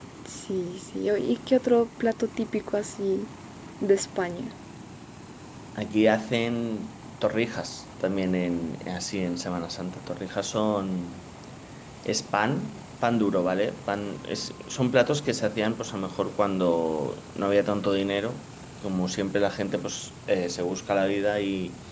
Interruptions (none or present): none